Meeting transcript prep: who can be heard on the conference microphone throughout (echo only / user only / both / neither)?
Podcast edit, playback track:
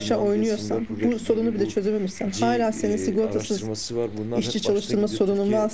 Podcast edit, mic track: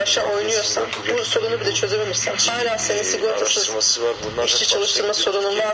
echo only